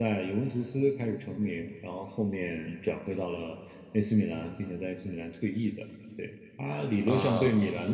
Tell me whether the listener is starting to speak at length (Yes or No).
No